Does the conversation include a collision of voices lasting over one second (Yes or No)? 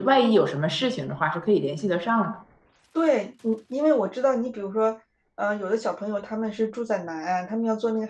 No